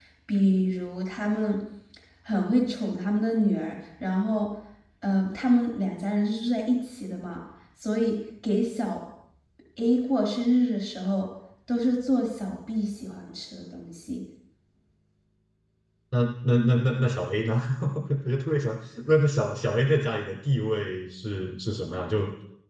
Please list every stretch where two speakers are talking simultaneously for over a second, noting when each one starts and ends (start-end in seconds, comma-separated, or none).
none